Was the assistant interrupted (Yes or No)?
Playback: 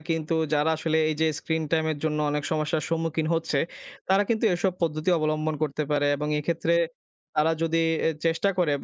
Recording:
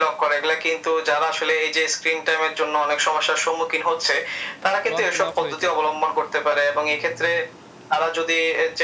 Yes